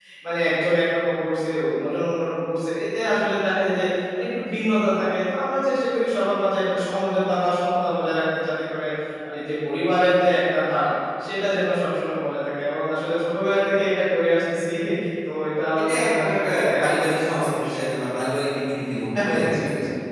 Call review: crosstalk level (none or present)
present